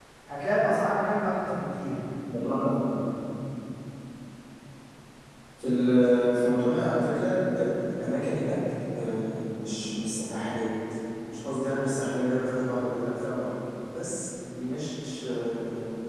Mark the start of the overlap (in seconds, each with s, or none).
none